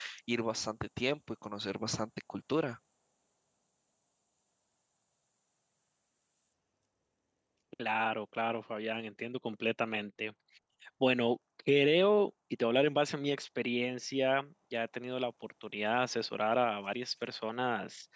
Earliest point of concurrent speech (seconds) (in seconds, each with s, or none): none